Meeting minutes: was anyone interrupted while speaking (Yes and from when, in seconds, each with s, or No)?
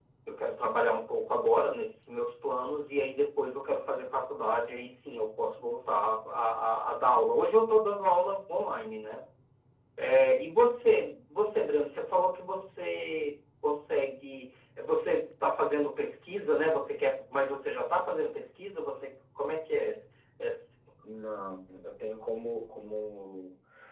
No